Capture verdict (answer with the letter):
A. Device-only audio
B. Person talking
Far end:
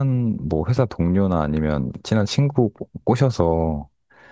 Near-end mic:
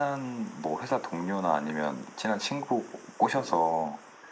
A